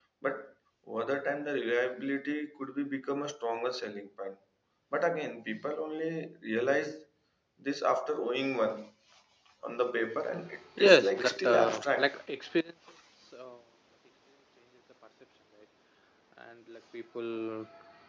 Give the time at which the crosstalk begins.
10.8 s

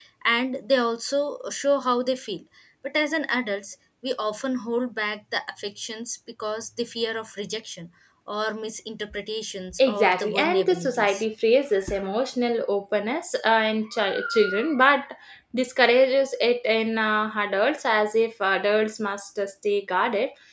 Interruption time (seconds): 9.8 s

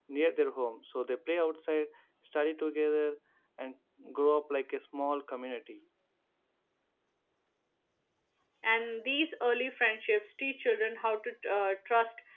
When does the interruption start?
none

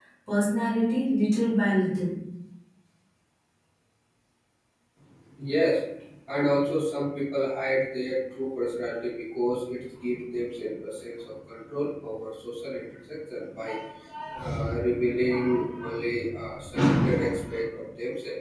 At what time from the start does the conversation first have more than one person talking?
none

